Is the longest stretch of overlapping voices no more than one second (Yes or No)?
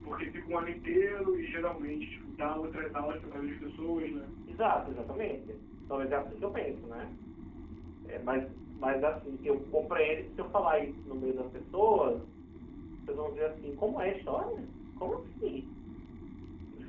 Yes